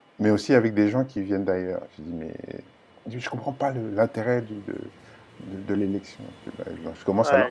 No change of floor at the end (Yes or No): No